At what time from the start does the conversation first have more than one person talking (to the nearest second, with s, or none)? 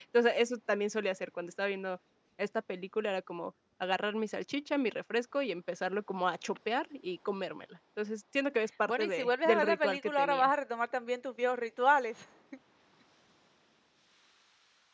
9 s